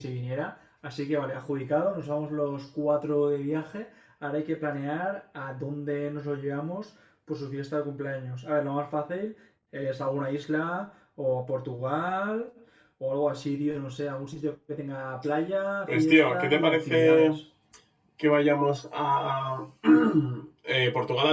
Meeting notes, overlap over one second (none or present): present